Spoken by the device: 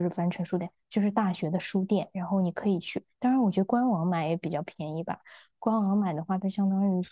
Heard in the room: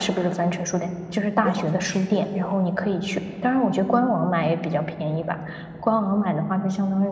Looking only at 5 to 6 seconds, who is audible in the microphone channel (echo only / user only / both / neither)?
echo only